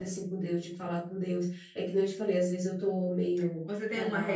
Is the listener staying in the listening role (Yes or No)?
No